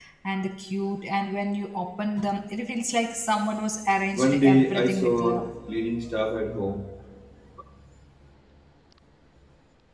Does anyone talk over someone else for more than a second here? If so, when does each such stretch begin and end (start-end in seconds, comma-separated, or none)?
4.1-5.5